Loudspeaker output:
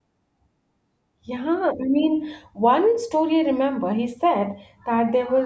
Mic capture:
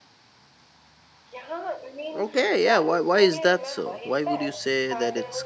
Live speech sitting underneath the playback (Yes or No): No